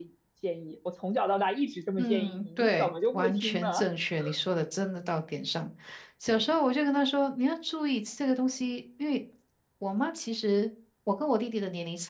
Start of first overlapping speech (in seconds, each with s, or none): 2.0 s